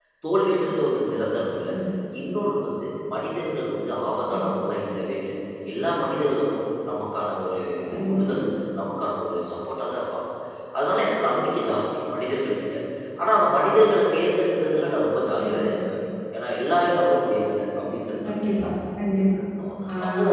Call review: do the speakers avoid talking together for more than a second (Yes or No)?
Yes